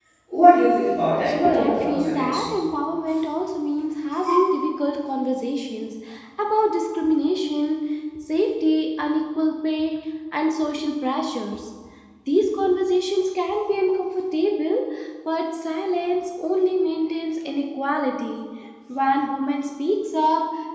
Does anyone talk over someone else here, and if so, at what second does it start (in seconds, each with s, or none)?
1.2 s